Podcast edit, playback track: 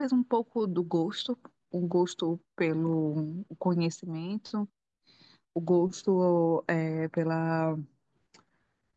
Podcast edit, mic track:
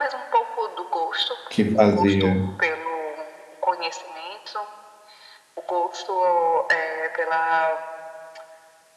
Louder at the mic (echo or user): user